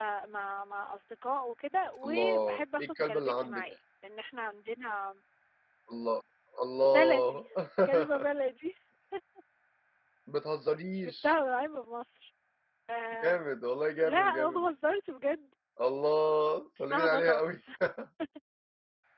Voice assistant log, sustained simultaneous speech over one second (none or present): present